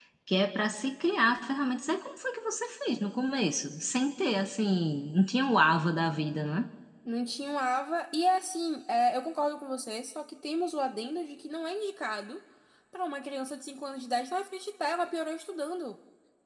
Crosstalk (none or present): none